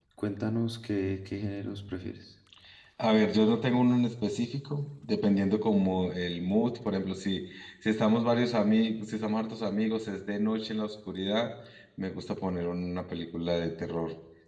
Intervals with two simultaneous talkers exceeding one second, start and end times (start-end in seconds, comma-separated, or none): none